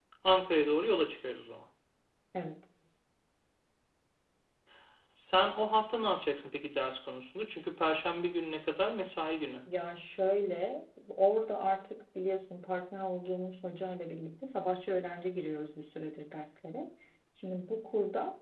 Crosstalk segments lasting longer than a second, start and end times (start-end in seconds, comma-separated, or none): none